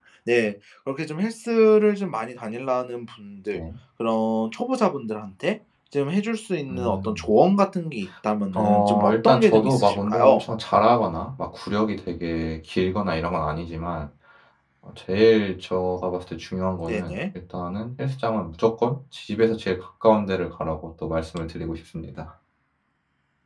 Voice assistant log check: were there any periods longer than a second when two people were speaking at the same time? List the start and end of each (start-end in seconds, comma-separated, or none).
8.5-10.4